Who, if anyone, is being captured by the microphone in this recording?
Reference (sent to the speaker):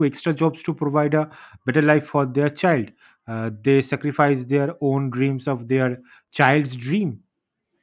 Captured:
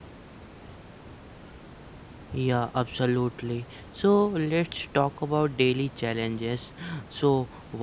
user only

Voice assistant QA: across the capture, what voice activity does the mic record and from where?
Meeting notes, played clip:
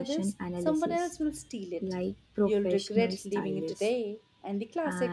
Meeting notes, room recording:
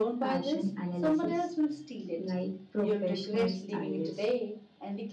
echo only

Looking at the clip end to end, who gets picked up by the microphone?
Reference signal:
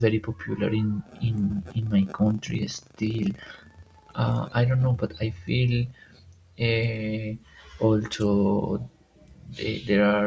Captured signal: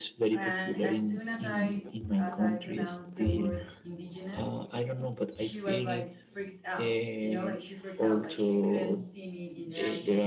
both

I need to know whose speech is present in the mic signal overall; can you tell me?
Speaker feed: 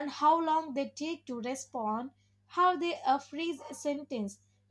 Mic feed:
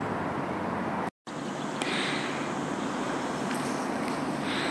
neither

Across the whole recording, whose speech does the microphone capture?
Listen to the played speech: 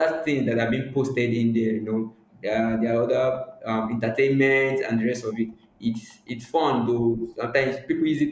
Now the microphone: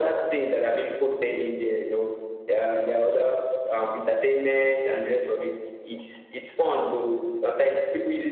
echo only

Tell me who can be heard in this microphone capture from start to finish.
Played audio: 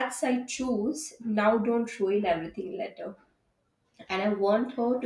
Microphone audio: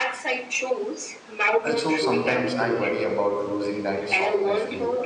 both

